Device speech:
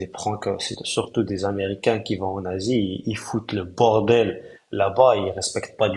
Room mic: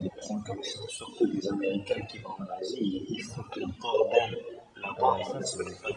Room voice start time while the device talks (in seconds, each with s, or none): 5.0 s